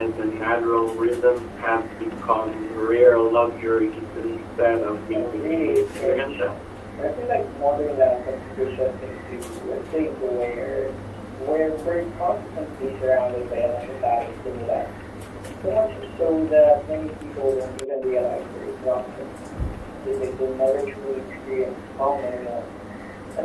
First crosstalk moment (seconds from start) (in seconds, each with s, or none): 5.1 s